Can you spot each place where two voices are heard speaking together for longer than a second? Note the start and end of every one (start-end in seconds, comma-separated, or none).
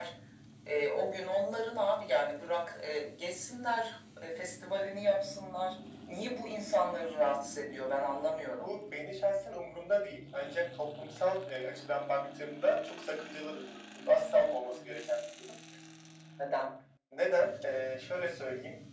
none